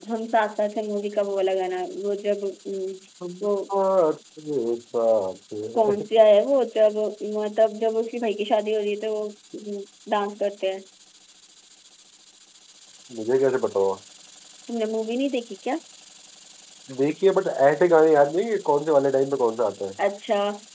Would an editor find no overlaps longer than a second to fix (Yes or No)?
Yes